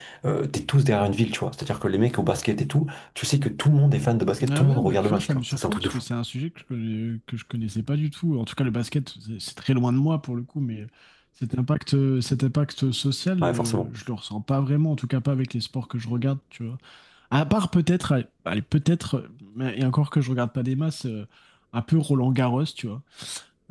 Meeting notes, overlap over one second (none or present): present